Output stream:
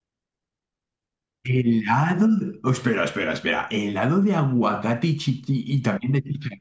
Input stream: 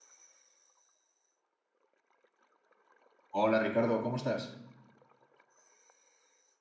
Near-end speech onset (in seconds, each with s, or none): 3.3 s